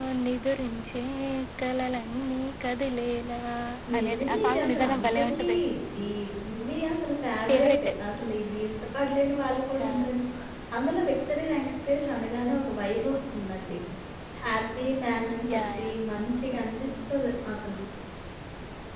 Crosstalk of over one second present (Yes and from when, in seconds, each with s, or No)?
Yes, from 4.0 s